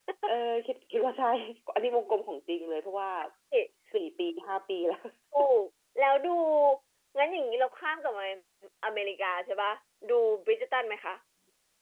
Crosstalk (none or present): none